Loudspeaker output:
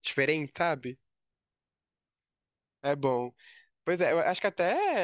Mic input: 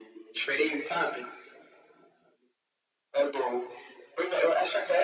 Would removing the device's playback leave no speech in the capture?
Yes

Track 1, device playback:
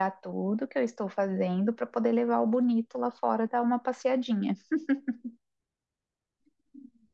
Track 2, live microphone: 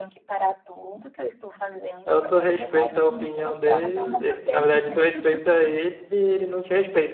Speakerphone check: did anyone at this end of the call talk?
Yes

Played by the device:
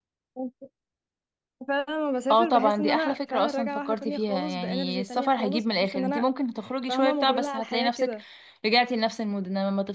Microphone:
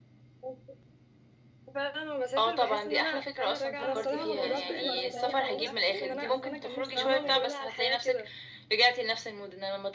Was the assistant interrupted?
Yes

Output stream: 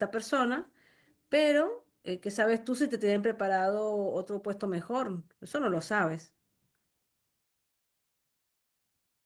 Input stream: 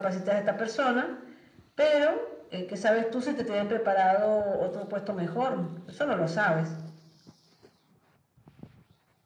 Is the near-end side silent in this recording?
Yes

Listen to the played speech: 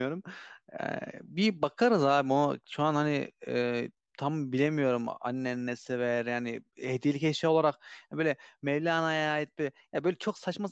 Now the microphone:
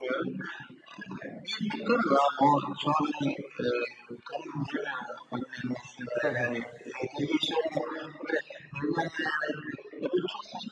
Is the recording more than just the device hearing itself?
Yes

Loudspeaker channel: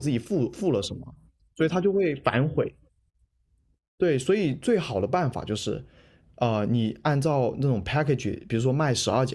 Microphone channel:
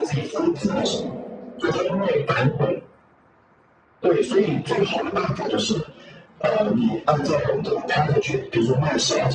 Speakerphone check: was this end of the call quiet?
No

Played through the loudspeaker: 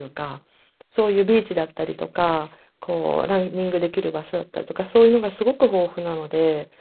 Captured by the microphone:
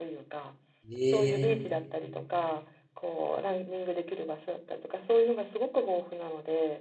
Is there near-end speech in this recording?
Yes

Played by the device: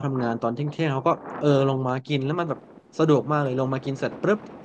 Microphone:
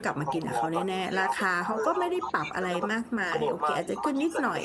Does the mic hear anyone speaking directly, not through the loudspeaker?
Yes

